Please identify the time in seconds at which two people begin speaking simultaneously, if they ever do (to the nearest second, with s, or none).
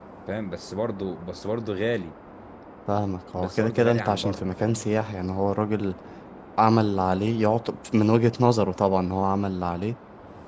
3 s